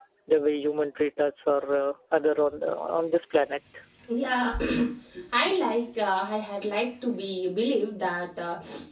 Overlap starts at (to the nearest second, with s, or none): none